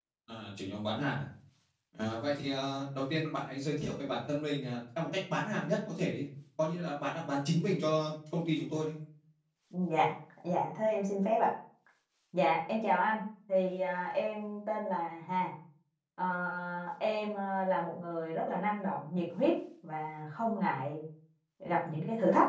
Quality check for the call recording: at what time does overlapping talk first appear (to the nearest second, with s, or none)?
none